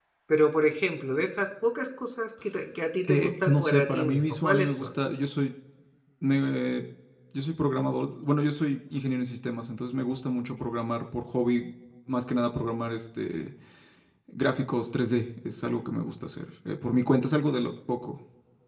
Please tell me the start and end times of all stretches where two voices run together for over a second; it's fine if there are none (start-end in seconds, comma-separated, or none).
3.0-5.0